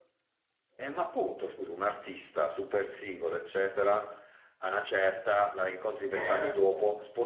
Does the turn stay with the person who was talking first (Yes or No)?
Yes